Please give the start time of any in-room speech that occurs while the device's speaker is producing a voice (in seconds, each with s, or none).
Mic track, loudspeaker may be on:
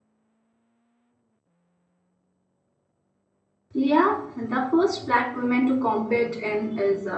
3.7 s